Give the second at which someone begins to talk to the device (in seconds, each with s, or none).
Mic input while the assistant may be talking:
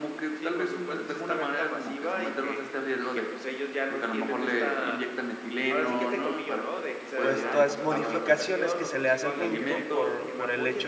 7.2 s